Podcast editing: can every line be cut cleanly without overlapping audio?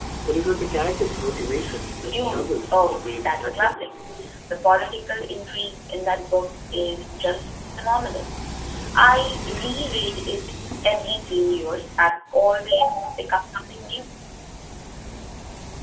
No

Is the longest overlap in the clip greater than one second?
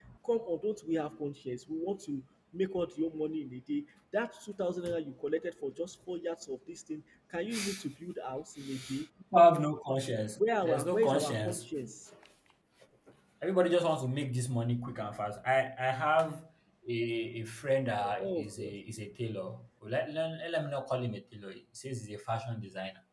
Yes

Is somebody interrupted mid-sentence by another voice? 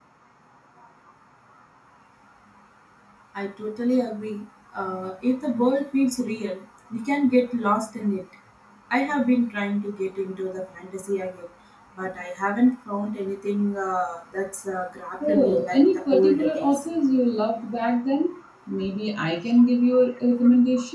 Yes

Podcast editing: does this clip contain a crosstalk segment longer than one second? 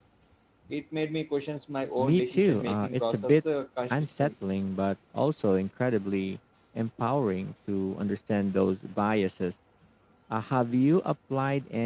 Yes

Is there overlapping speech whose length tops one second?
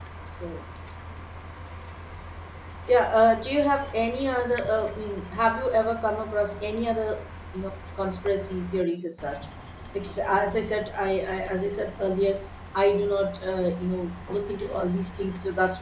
No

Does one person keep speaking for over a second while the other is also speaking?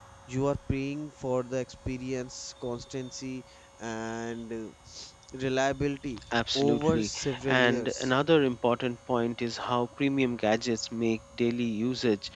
Yes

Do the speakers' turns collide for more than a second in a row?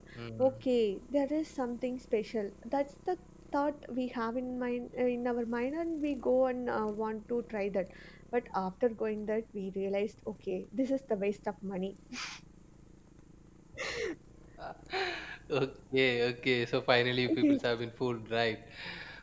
No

